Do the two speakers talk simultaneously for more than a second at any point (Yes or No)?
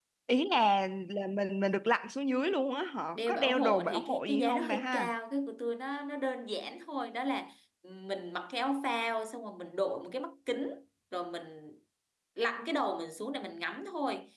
Yes